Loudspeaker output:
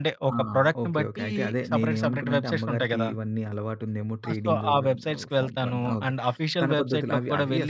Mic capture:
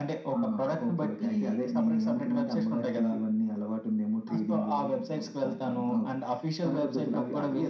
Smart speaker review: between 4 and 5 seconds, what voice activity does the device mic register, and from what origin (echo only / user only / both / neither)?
echo only